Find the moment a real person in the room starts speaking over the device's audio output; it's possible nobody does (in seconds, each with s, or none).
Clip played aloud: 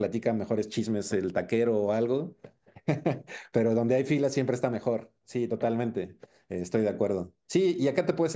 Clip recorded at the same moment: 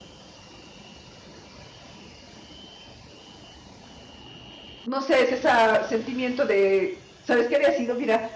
4.8 s